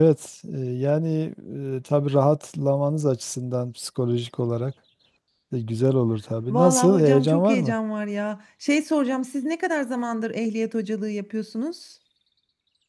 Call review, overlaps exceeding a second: present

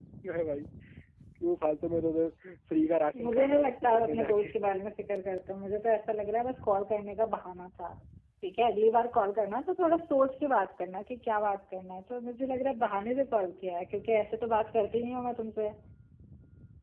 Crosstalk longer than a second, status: present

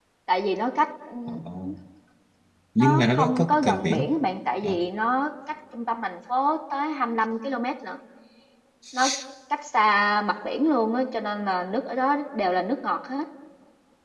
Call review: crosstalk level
present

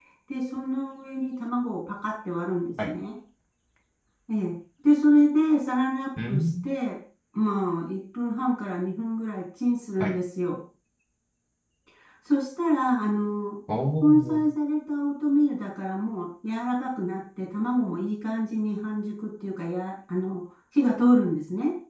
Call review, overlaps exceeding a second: none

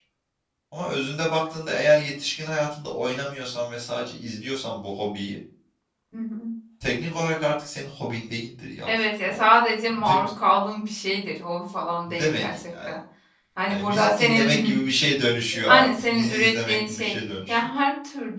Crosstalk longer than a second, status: present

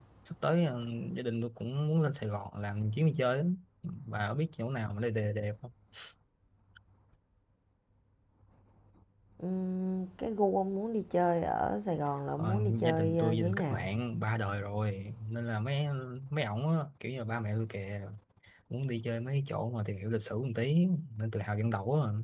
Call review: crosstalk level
present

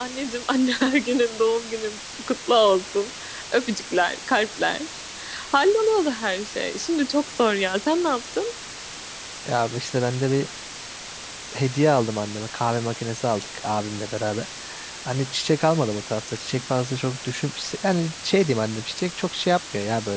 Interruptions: none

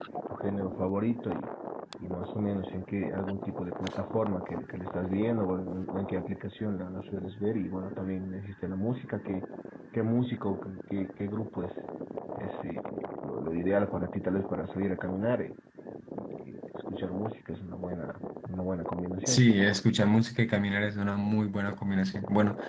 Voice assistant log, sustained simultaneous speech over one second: none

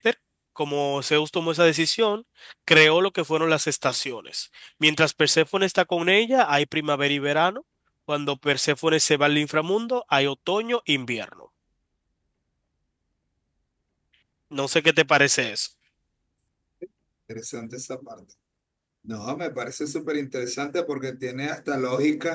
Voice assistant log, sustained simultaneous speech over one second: none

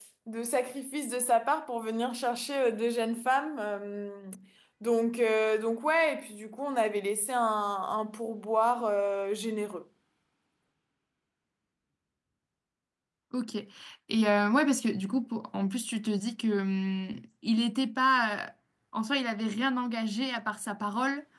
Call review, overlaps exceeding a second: none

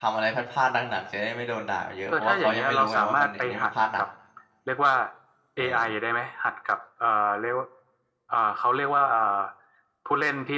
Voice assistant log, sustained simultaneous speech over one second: present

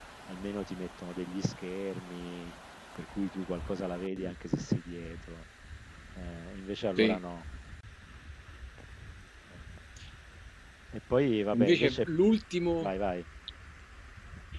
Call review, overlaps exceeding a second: none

